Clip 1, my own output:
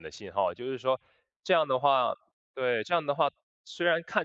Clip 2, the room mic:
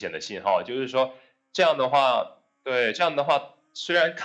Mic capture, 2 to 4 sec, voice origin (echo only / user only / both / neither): echo only